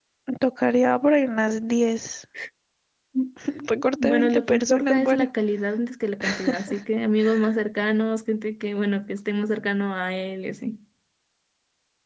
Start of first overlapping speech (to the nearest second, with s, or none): 4 s